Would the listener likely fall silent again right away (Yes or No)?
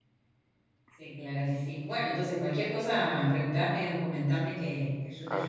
No